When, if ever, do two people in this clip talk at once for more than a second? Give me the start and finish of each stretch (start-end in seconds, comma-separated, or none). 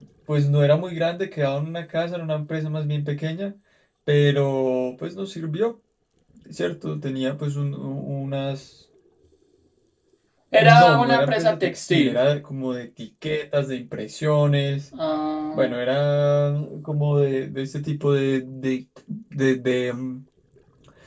10.6-12.2